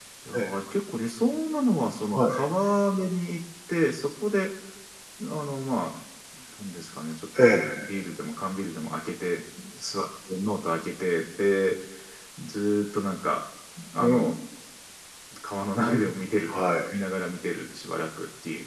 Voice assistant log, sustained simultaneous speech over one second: none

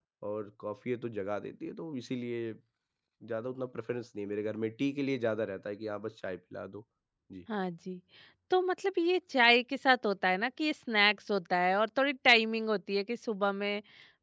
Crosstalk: none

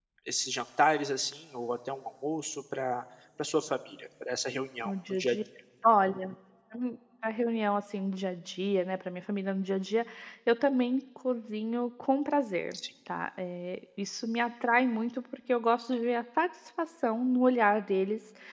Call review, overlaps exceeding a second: none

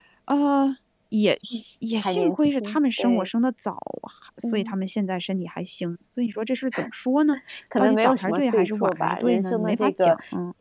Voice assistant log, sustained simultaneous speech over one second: present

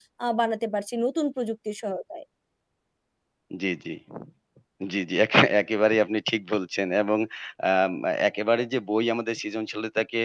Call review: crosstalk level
none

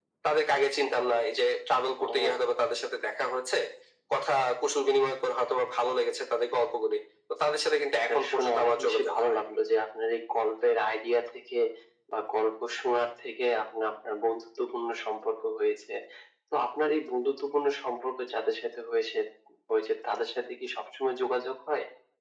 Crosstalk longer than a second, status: present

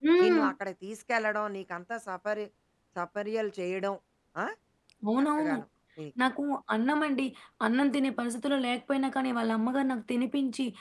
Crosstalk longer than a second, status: none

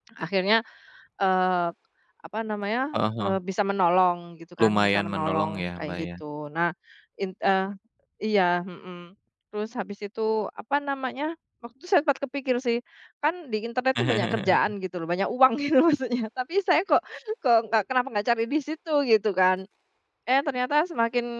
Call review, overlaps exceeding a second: present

